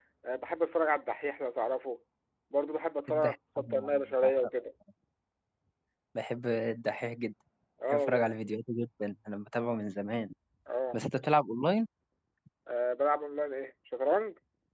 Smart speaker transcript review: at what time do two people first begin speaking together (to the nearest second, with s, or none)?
3 s